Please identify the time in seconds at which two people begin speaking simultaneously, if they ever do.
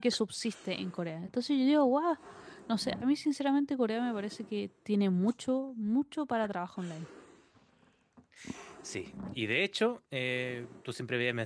none

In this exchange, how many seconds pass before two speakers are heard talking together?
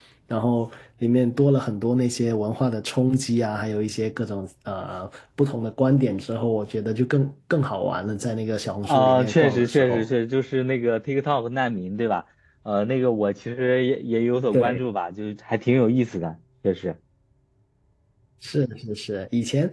9 s

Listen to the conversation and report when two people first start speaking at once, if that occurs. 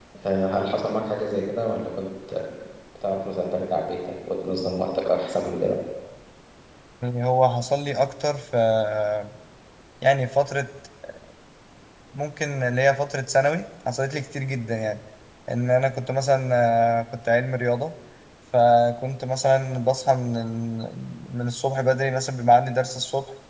none

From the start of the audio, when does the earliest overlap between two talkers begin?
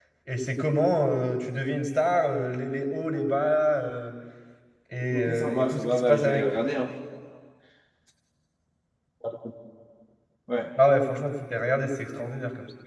5 s

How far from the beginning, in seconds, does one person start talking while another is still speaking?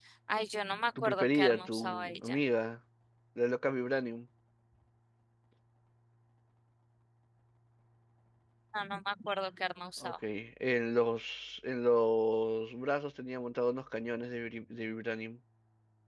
1 s

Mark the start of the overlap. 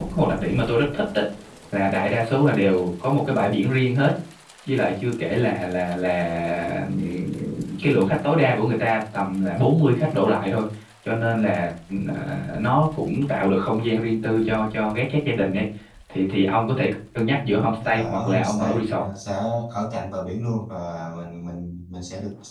17 s

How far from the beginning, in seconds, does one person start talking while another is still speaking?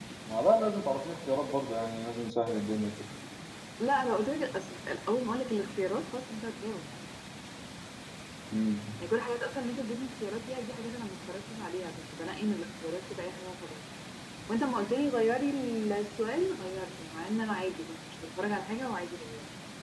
none

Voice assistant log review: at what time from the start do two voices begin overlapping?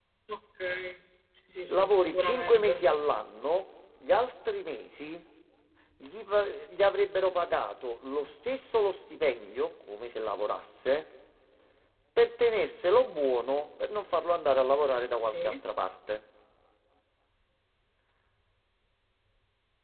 2 s

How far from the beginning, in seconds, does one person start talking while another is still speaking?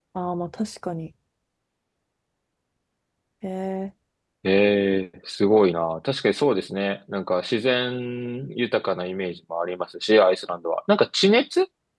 none

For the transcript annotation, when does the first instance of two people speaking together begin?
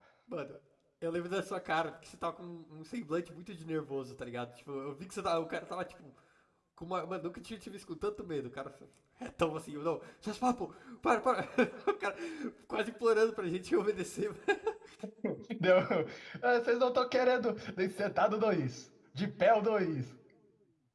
none

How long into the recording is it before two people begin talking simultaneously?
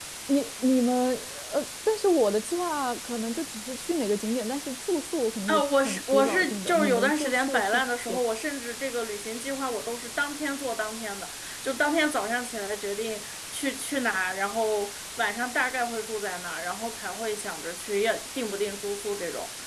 5 s

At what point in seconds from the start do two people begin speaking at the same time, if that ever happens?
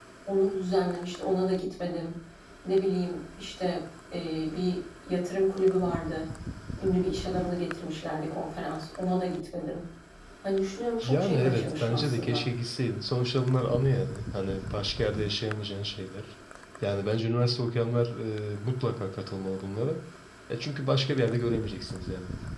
11 s

